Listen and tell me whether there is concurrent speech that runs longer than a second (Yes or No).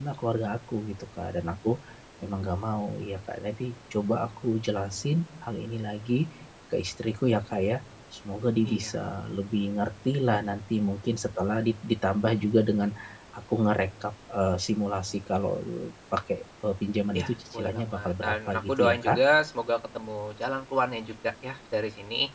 Yes